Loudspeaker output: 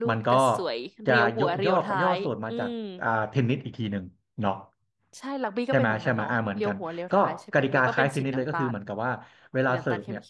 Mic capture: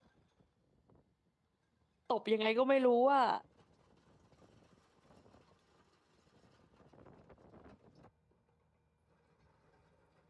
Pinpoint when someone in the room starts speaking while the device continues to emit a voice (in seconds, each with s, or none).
2.1 s